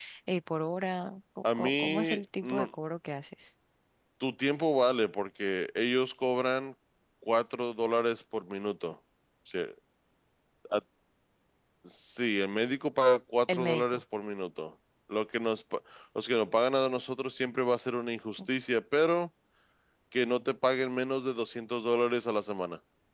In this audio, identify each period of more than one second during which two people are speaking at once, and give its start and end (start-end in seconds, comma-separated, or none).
1.4-2.7